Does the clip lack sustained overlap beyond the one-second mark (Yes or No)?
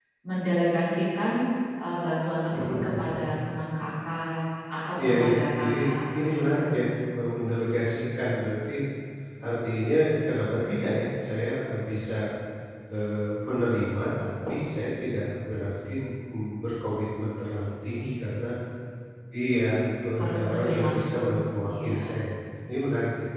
No